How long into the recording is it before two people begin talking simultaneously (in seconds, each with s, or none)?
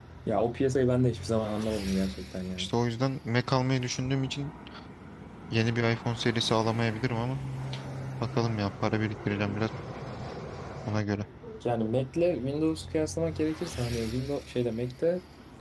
none